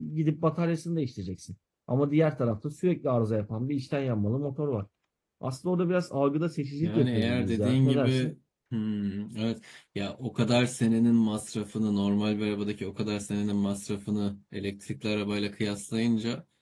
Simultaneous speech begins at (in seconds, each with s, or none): 6.8 s